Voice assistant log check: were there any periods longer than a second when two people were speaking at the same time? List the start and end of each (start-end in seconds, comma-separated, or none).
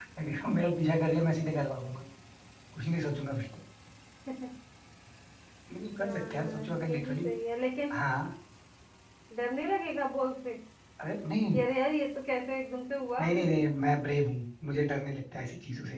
6.0-7.3